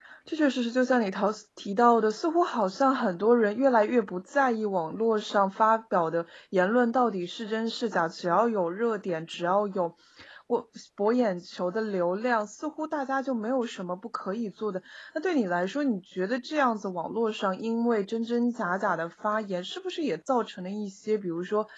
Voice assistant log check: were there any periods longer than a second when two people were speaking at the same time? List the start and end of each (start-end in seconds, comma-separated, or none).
none